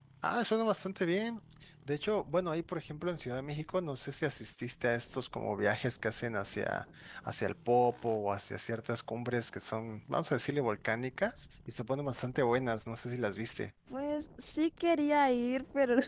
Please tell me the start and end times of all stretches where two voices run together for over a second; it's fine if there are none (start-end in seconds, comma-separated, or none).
none